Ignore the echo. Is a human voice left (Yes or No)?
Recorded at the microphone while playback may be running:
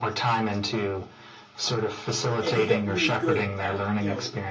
Yes